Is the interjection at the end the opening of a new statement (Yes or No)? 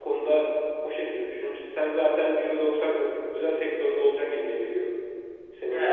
Yes